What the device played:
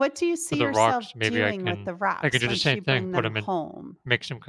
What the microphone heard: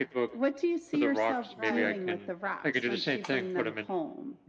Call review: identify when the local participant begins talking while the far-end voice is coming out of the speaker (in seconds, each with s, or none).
1.5 s